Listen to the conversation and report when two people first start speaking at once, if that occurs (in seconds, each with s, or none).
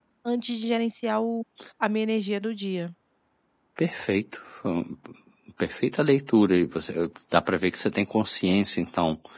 none